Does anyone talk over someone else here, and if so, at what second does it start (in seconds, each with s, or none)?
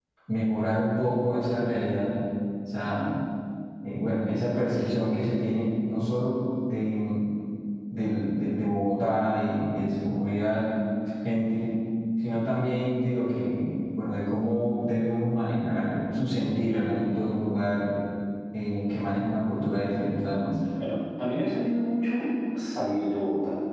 none